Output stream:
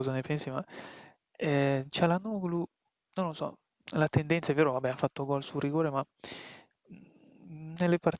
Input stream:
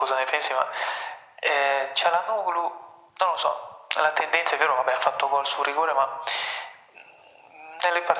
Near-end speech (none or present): none